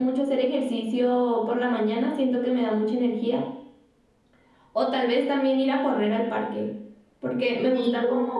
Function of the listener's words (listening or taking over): listening